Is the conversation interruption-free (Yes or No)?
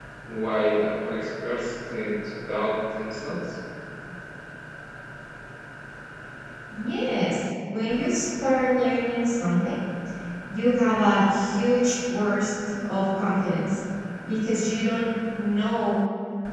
Yes